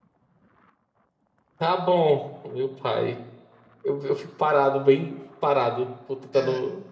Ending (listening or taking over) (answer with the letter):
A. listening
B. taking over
B